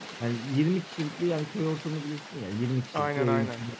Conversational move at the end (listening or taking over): listening